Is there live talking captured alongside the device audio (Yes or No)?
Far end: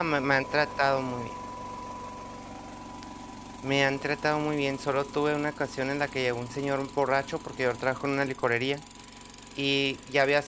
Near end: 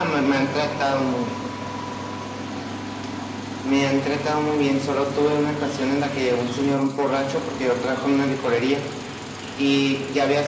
No